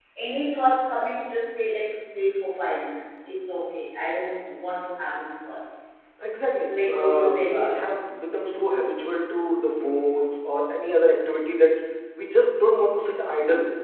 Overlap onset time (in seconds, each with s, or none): 6.6 s